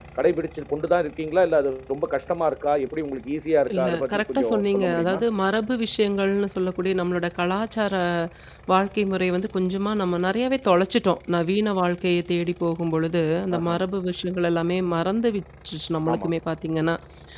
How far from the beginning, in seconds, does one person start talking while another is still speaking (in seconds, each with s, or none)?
3.7 s